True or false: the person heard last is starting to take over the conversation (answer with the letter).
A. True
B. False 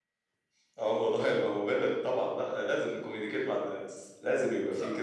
A